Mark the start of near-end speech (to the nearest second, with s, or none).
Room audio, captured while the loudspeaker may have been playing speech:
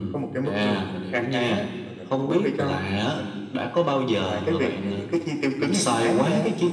none